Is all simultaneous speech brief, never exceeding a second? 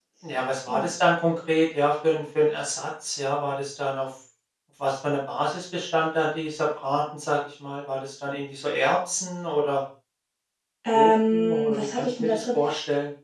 No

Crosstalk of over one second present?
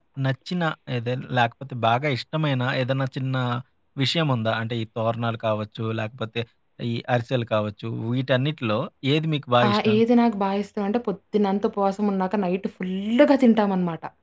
No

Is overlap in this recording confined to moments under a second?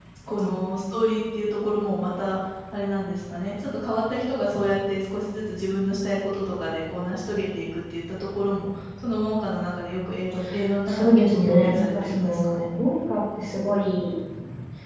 No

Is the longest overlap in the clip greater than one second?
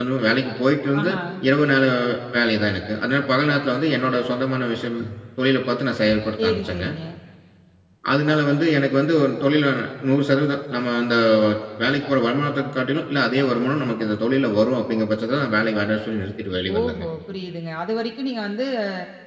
No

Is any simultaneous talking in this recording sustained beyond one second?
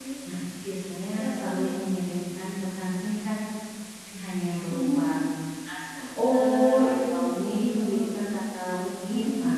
Yes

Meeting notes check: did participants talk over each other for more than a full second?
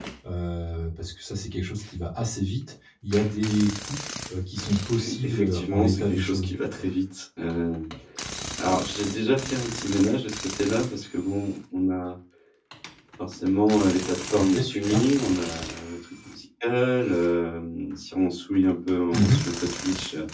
Yes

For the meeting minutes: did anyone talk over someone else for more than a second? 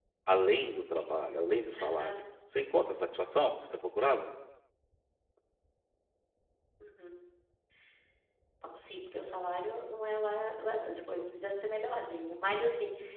No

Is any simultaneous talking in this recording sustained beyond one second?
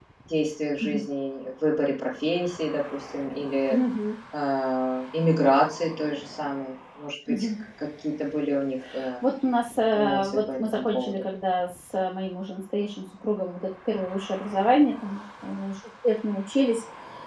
Yes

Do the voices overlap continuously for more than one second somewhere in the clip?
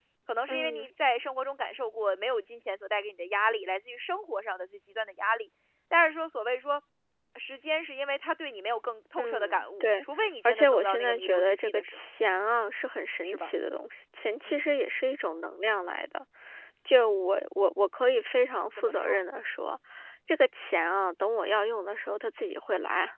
Yes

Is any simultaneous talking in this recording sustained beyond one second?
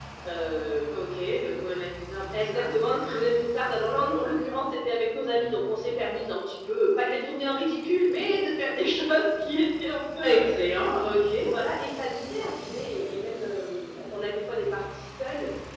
No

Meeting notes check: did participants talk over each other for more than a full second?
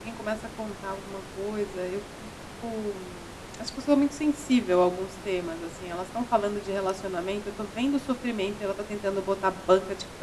No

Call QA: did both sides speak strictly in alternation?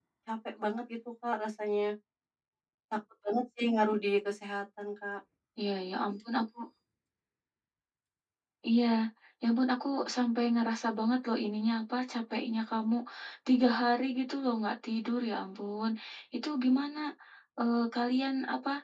Yes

